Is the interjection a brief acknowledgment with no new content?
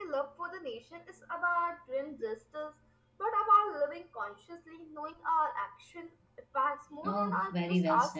No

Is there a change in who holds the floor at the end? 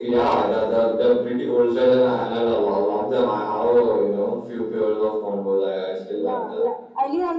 Yes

